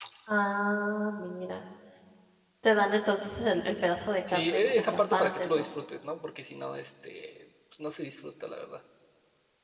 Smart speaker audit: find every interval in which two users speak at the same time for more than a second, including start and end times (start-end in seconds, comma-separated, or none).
4.3-5.7